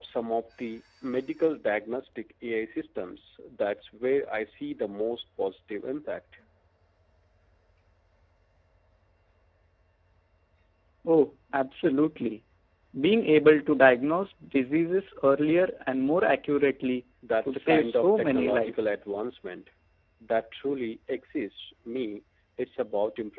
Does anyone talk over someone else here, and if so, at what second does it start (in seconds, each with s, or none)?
17.2 s